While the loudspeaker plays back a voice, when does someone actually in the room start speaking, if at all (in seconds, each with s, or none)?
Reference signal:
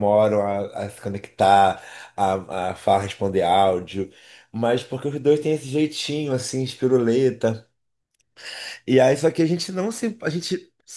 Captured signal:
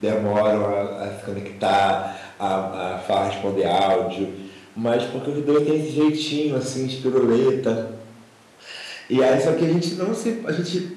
none